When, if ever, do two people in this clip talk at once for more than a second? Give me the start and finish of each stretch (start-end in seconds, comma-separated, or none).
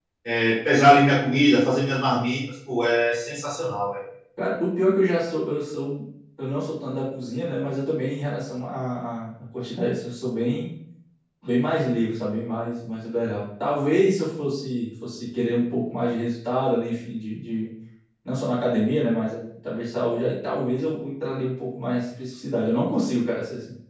none